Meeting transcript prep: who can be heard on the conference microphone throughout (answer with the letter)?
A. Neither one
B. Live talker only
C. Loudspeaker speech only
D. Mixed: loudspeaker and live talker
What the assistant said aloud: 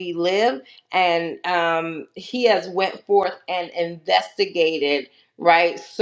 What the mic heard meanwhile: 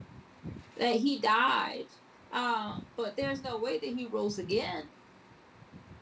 B